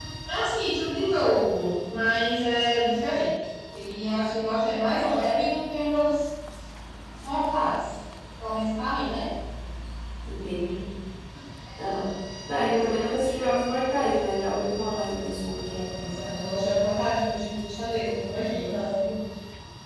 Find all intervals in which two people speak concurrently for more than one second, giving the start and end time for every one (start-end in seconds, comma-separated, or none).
none